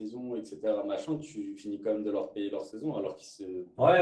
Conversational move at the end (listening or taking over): taking over